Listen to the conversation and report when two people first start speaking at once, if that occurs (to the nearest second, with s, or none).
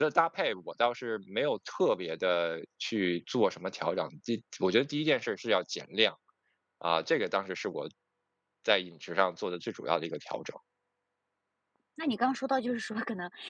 none